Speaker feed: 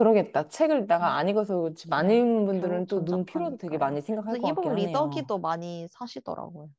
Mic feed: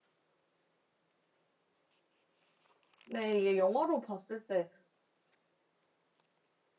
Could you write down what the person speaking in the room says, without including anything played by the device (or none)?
네, 이게 영화로 봤을 때